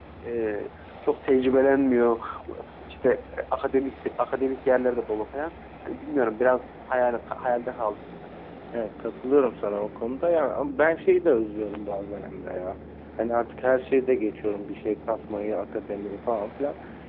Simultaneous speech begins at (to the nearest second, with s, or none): none